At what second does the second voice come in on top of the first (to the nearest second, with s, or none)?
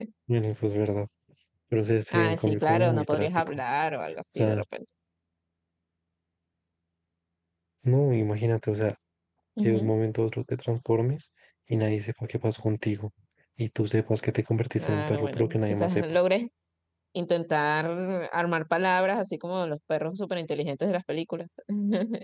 2 s